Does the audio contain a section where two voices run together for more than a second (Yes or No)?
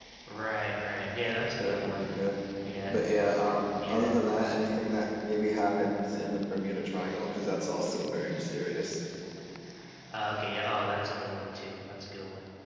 No